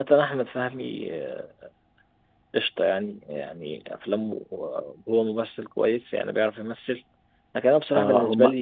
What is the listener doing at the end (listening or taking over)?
listening